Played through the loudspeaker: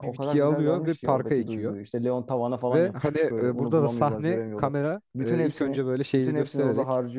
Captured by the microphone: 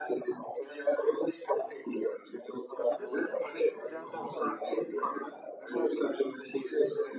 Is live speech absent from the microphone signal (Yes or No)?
No